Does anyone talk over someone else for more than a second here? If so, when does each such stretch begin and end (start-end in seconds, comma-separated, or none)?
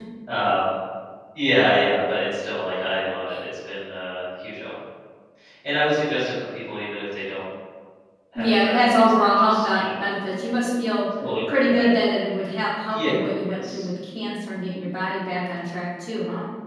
8.3-9.8